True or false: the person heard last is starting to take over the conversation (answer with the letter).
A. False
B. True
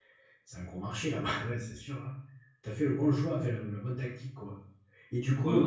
A